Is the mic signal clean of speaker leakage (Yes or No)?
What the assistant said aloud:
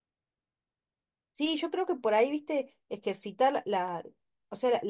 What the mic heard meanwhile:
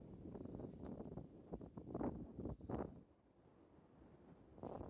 Yes